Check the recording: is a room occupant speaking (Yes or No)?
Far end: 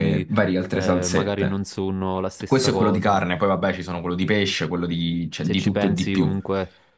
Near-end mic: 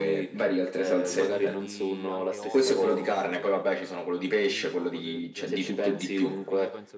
Yes